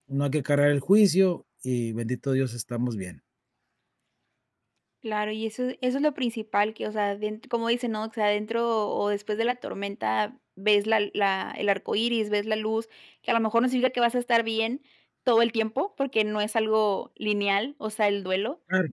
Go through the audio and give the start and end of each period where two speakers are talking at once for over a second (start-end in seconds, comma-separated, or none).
none